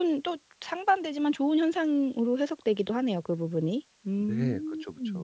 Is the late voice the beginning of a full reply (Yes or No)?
Yes